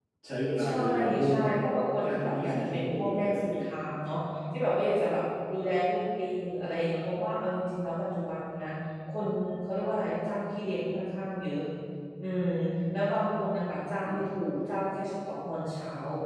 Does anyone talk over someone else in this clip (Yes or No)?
Yes